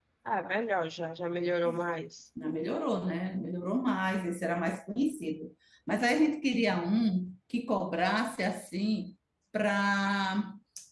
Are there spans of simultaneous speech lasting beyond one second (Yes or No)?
No